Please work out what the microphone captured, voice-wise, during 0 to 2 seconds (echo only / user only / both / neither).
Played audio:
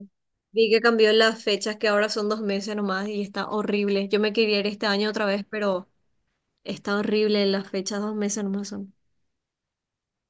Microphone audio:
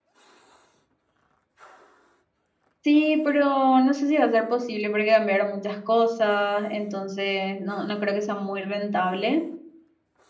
neither